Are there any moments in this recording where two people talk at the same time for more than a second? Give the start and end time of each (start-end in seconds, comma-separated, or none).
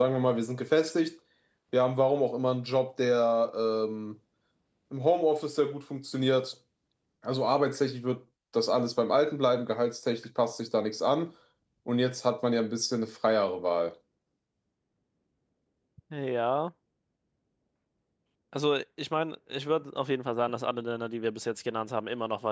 none